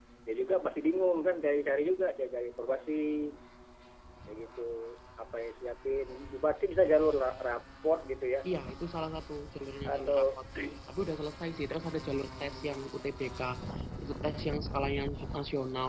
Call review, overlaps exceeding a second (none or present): none